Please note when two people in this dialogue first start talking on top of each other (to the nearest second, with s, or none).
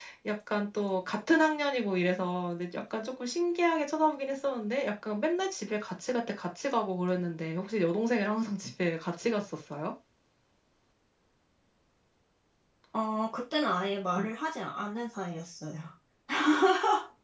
none